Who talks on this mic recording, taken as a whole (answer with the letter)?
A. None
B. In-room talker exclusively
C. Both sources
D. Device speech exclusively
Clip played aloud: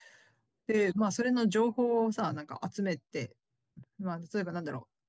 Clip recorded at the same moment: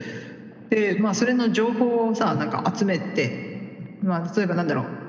D